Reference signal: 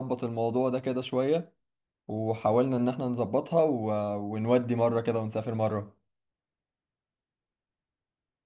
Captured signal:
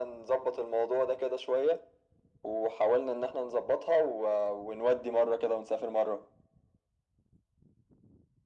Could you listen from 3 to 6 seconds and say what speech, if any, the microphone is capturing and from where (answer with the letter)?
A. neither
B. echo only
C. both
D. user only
B